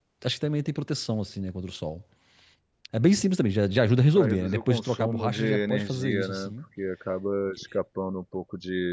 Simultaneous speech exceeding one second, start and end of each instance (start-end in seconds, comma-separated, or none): 4.2-6.5